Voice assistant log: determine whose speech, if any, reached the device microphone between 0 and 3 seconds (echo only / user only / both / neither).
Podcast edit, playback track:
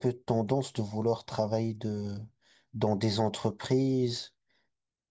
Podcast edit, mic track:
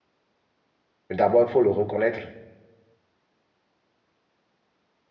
user only